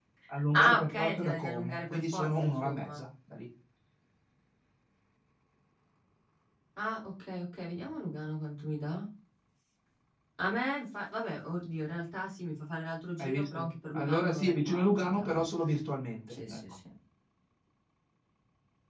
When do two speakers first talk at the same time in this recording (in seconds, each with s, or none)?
0.5 s